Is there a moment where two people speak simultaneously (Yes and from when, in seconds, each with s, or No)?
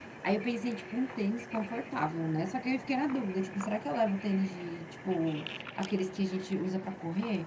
No